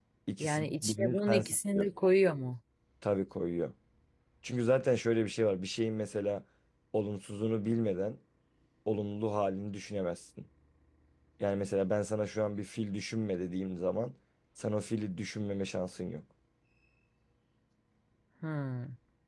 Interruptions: present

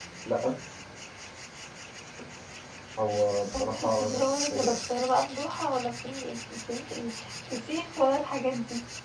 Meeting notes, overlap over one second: present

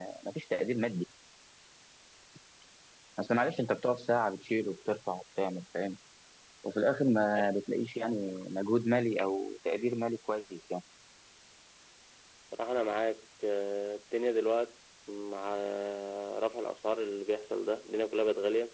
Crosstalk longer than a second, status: none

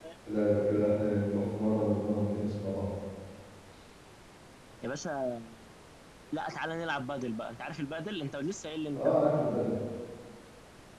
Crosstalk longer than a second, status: none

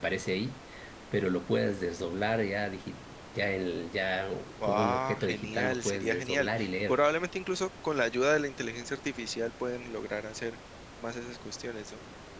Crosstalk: present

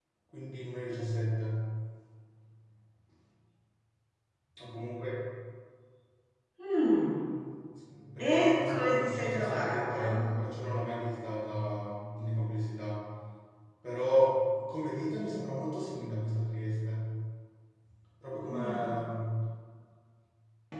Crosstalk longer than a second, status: present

